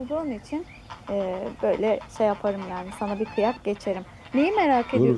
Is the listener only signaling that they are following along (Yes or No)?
No